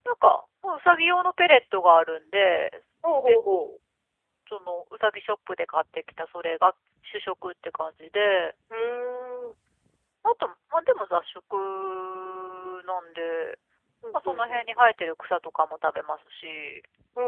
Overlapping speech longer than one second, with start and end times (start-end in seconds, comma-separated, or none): none